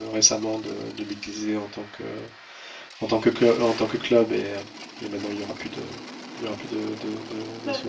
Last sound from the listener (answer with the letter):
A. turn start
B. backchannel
A